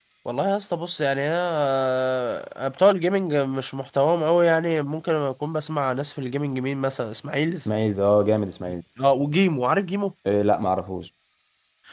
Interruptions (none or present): none